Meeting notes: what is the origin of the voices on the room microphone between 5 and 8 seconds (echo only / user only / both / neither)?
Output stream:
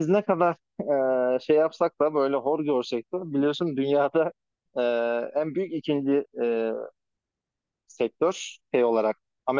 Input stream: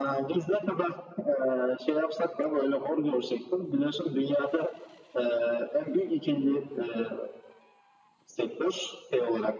echo only